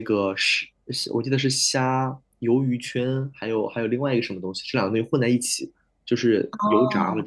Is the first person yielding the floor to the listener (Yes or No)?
Yes